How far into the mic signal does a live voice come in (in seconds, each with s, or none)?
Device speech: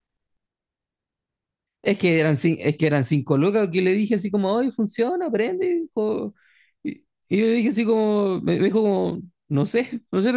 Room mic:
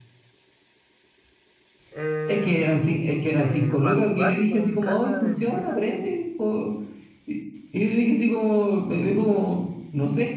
1.9 s